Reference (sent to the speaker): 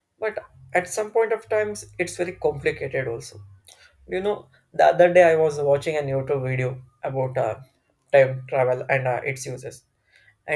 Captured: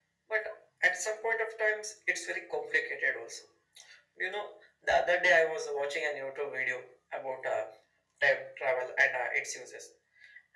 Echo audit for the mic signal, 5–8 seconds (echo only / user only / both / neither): echo only